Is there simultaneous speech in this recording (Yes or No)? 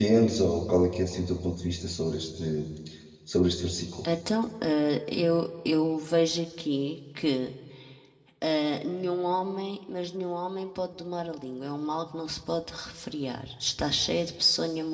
No